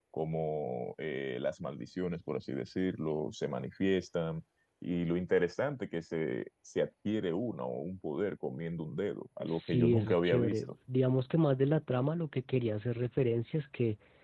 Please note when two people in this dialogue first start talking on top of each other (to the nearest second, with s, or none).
9 s